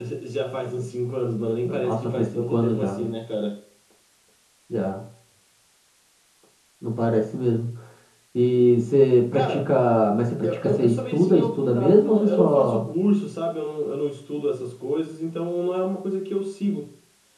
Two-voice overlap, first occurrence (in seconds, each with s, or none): 1.6 s